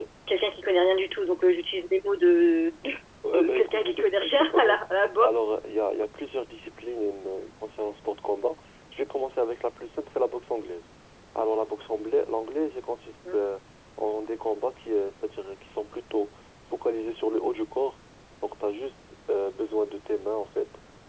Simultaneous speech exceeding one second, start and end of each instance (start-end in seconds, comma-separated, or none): 3.5-4.8